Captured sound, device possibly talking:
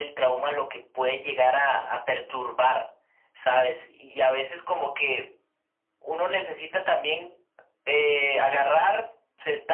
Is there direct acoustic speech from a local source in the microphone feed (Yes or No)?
No